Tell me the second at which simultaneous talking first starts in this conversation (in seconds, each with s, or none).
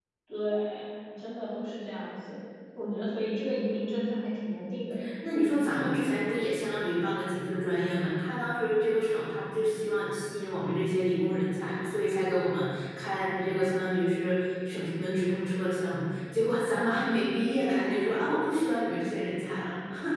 none